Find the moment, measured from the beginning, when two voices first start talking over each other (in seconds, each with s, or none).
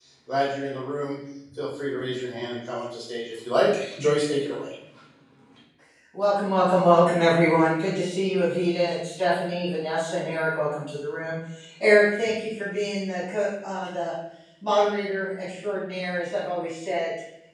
none